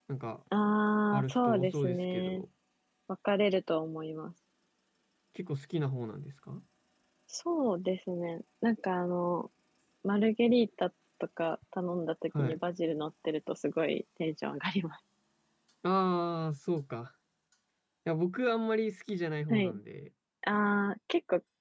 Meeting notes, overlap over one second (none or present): present